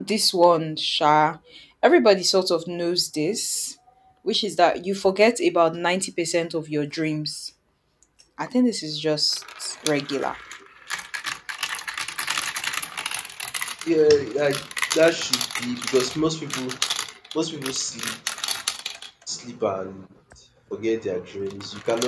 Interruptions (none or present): none